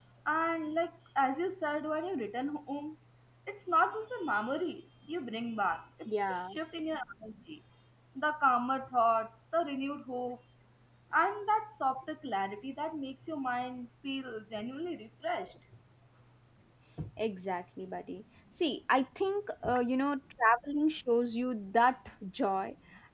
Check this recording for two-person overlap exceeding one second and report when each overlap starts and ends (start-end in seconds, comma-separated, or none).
none